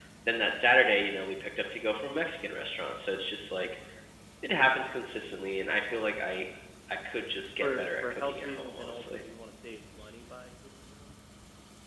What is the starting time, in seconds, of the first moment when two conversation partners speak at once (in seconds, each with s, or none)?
7.6 s